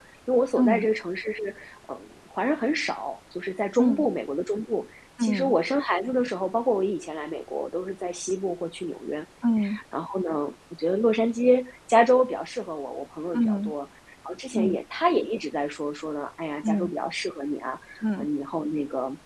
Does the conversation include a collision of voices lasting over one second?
No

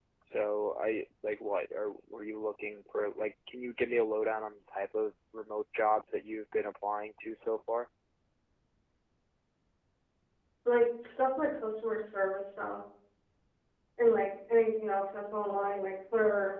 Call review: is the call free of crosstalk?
Yes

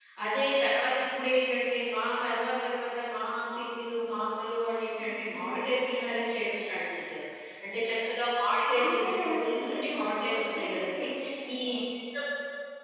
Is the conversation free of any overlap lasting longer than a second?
No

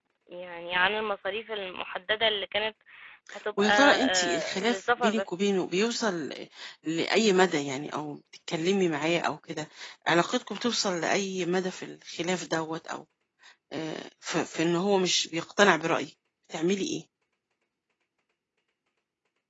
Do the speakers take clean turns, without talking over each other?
No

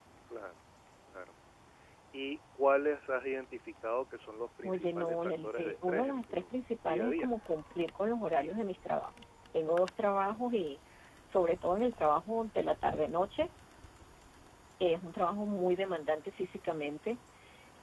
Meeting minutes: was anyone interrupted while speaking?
Yes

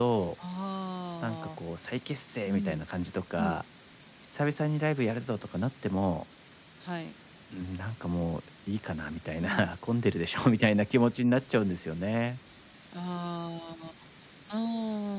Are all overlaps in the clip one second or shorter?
Yes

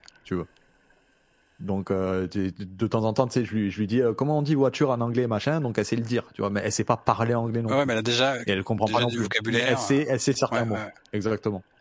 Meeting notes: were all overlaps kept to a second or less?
No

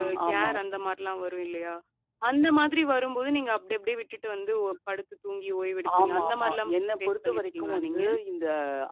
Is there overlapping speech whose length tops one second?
Yes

